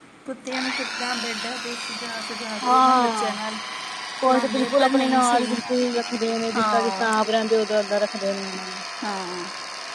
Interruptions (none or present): present